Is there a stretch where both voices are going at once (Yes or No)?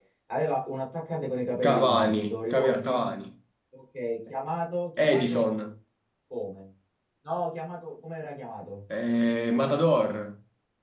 Yes